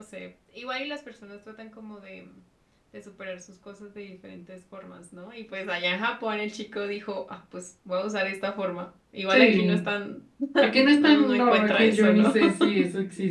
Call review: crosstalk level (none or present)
present